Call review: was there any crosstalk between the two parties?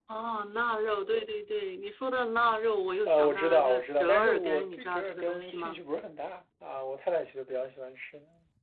Yes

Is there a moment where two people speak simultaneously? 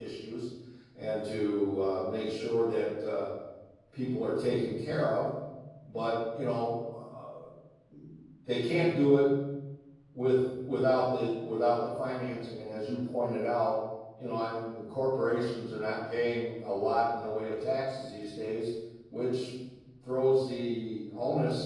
No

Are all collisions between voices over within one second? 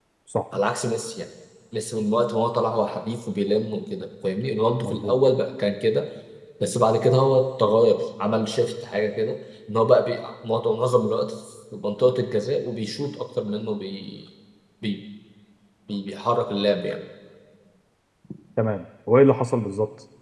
Yes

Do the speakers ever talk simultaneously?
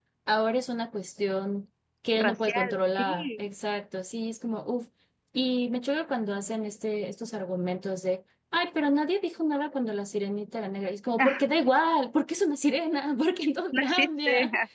Yes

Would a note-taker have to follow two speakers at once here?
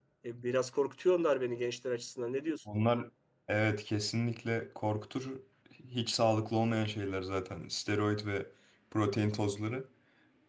No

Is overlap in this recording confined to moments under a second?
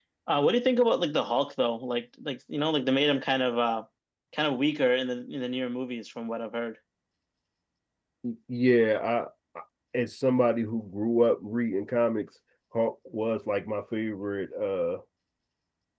Yes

